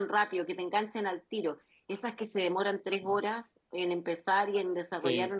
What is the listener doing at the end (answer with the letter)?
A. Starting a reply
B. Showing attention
B